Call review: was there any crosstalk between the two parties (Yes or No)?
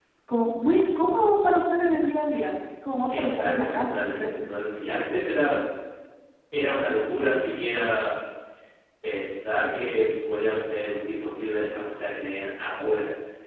Yes